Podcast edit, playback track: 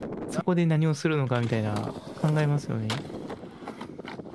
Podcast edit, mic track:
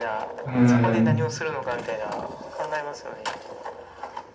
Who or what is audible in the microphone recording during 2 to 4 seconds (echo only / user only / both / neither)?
echo only